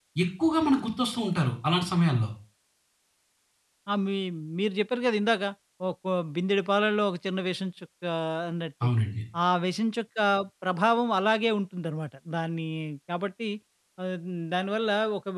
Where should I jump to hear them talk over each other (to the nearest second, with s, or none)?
none